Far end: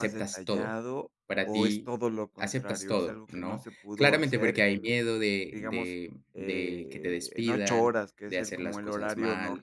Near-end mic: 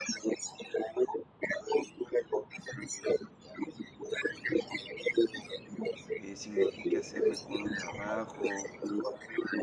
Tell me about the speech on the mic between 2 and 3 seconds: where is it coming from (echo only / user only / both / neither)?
echo only